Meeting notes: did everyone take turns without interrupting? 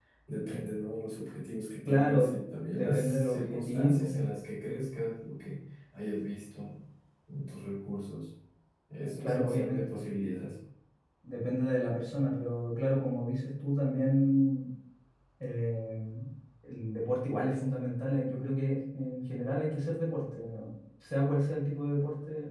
No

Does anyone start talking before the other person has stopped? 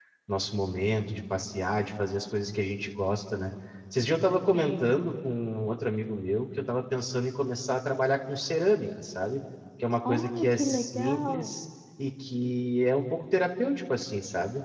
Yes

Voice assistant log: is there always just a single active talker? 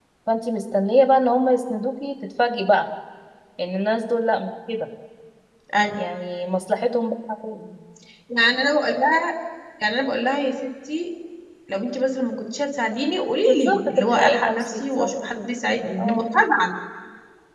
No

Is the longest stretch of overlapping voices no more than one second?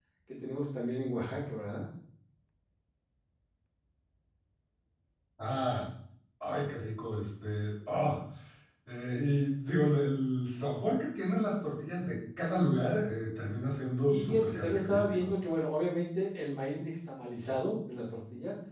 No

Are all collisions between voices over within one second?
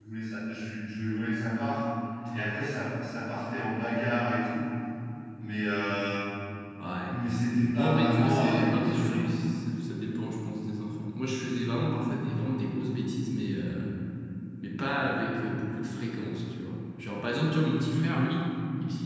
No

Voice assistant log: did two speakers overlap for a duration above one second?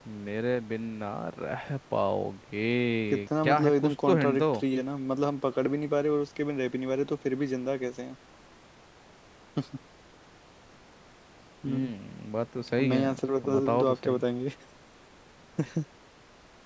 Yes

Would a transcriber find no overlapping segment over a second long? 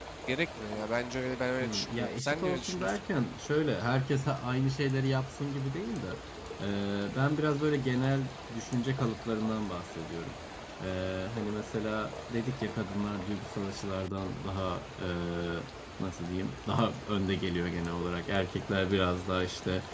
No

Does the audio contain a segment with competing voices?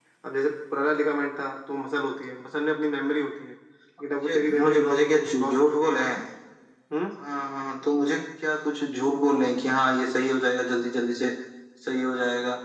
Yes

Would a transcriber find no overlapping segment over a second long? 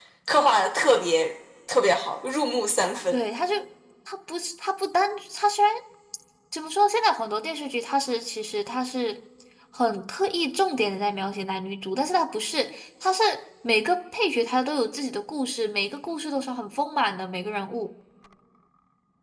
Yes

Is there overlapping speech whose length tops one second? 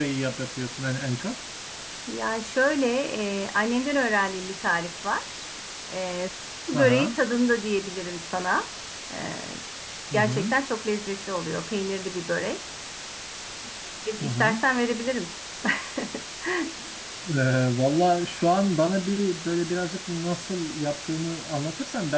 No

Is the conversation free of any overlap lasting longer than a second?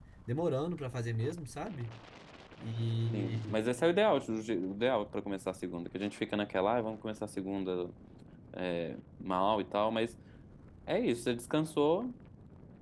Yes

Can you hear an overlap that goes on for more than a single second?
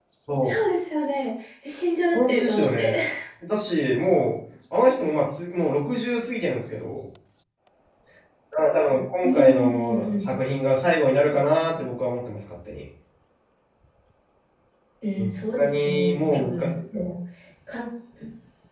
Yes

